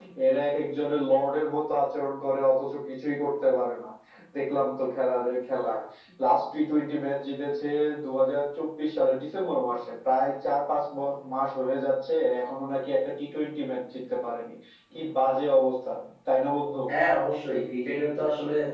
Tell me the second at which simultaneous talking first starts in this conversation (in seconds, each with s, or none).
none